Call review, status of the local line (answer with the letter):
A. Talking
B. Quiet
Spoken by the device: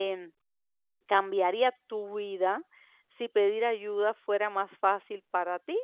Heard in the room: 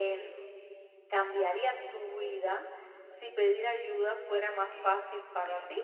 A